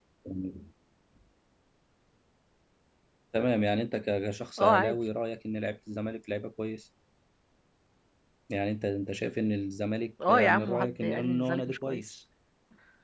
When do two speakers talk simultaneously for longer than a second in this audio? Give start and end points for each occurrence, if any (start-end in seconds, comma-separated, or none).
10.3-12.1